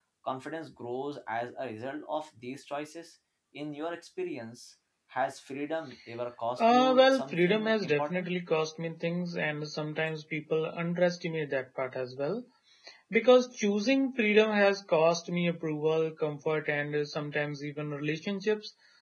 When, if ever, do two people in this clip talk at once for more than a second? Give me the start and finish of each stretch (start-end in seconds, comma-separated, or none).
6.6-8.3